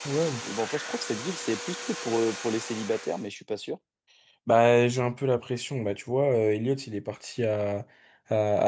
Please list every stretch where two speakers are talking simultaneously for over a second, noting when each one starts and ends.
none

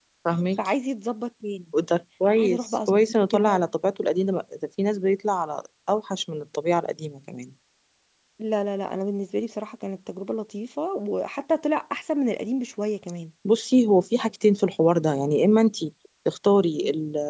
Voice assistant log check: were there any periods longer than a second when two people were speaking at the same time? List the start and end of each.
2.4-3.6

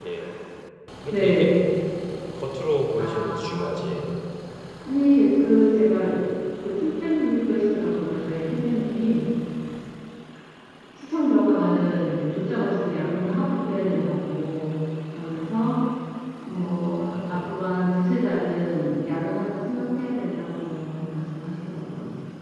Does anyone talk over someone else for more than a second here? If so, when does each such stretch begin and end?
3.0-4.2

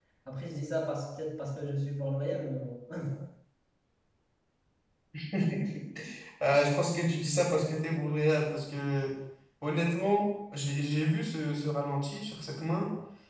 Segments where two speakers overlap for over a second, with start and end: none

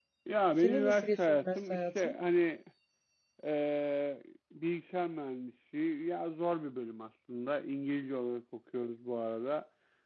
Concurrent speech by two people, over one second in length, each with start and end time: 0.6-2.2

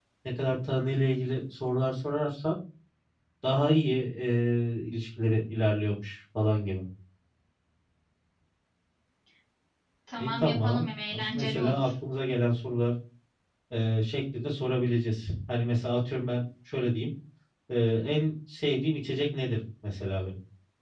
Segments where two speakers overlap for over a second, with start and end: 10.2-11.9

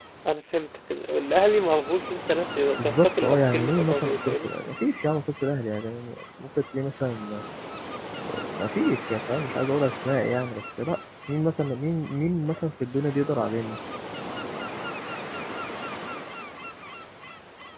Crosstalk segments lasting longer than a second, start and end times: 2.8-4.5

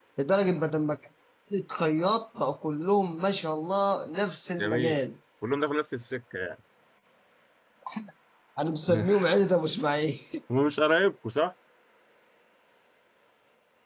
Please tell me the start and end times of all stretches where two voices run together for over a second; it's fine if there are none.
none

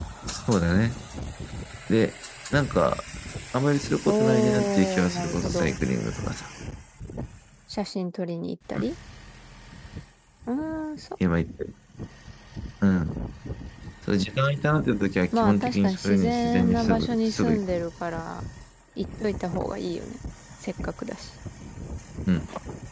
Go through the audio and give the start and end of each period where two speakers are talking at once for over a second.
4.0-5.8, 15.3-17.6

